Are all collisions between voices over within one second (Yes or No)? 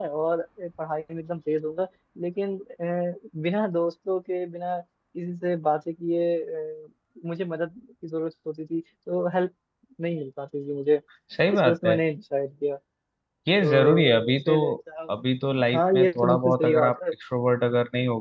No